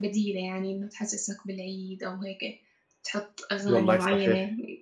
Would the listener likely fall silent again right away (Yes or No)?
Yes